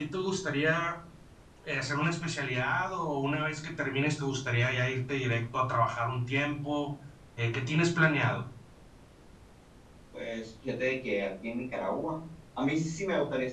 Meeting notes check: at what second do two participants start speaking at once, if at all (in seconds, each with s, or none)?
none